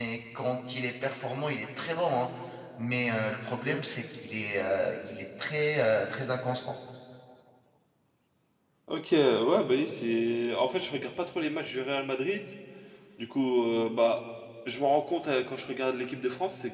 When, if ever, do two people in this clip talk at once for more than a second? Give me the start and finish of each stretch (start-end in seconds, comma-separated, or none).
none